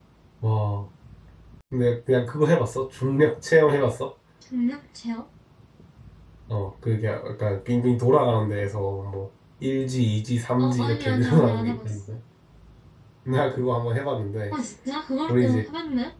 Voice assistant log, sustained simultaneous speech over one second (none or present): present